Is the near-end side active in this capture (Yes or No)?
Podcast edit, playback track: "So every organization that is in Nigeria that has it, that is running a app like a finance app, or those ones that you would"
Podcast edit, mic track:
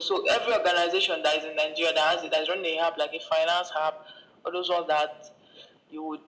No